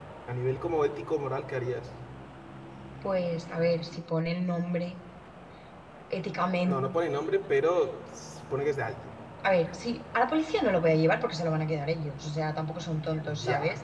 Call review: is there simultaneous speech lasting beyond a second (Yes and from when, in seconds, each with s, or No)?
No